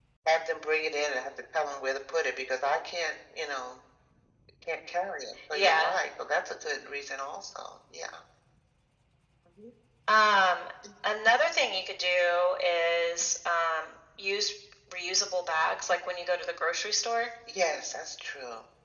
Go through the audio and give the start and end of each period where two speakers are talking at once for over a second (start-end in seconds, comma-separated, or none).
none